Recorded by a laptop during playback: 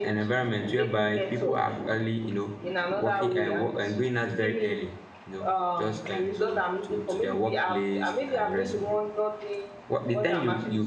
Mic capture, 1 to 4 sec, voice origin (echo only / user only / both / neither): both